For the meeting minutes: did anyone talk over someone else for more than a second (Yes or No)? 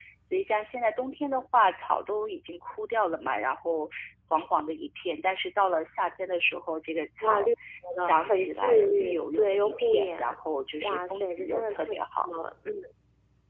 Yes